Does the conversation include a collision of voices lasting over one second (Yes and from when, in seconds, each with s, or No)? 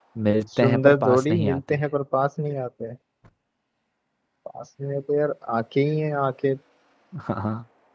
Yes, from 0.6 s